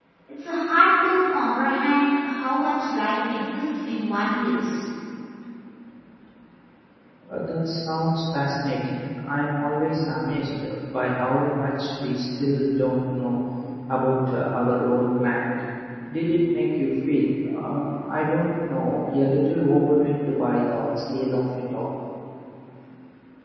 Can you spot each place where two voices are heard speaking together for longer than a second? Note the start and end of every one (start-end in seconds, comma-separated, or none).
none